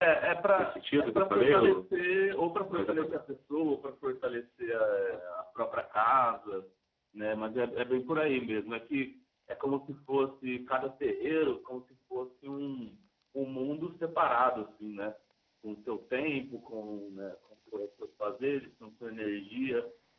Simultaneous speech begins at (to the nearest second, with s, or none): 1 s